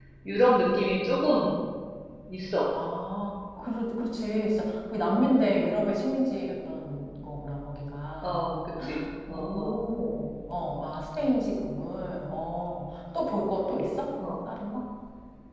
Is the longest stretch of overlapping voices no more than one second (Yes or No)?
Yes